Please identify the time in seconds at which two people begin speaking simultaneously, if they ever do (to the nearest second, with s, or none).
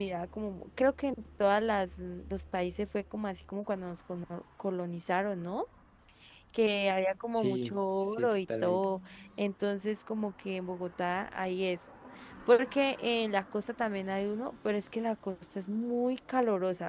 7 s